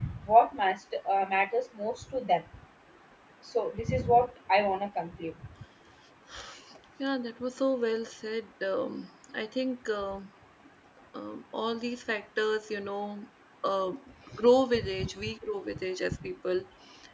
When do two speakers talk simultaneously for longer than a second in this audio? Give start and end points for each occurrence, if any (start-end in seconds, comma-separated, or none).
none